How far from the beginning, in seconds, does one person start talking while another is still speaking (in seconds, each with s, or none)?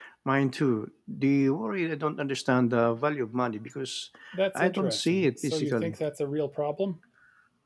4.5 s